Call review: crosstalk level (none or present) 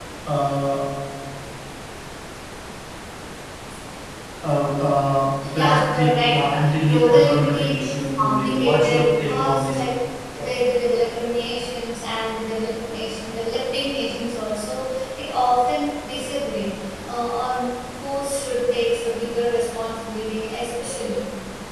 present